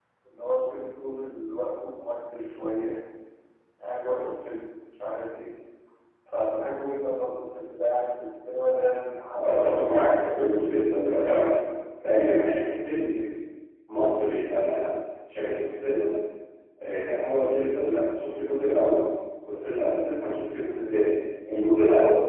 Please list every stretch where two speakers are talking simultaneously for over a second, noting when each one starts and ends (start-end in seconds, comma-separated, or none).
9.4-10.9